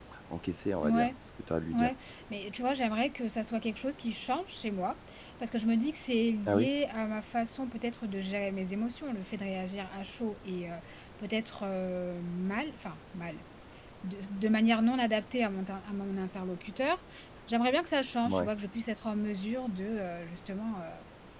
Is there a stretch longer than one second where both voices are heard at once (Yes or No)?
No